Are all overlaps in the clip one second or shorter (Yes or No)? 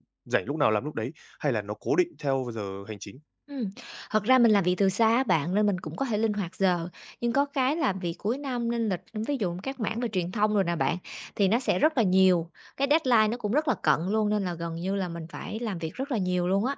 Yes